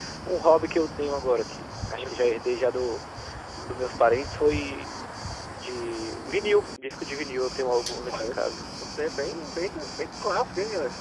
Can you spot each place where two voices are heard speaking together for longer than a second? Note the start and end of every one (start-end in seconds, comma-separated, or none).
none